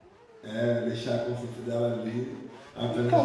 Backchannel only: No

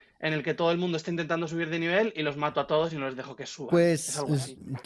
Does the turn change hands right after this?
Yes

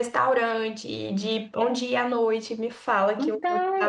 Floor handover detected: Yes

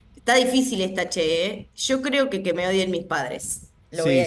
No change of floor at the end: No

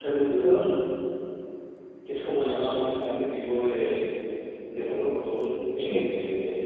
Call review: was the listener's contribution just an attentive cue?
Yes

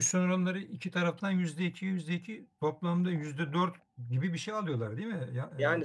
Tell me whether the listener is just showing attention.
No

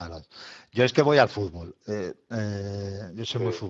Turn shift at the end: No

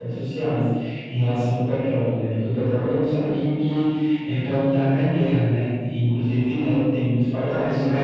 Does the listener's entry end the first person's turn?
Yes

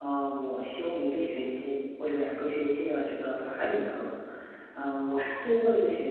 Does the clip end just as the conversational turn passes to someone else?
No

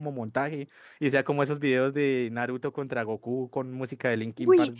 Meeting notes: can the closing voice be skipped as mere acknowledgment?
No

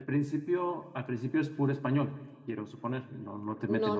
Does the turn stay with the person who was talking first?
No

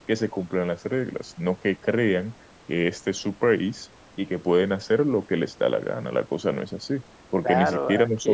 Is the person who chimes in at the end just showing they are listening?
No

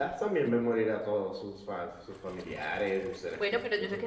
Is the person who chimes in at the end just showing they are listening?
No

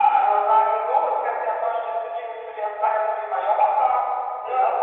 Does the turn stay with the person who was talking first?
Yes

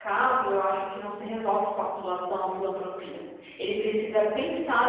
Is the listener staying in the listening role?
Yes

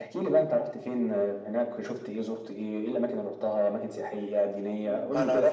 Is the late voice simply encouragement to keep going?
No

